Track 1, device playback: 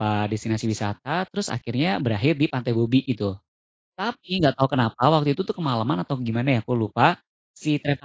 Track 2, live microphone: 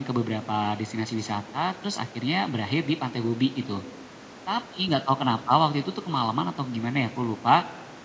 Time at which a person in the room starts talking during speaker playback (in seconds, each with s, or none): none